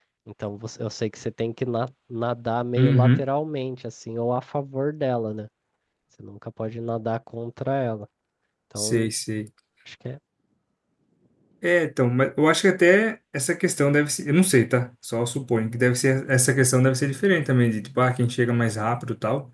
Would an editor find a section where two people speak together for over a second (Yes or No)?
No